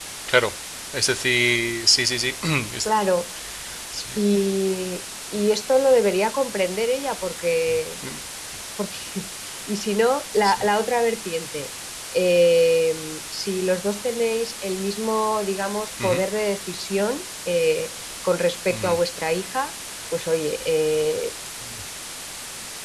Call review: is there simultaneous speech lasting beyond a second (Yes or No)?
No